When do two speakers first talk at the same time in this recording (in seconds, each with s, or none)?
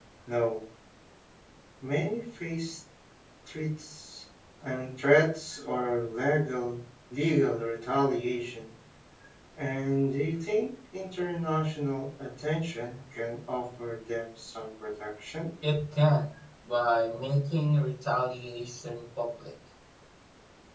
none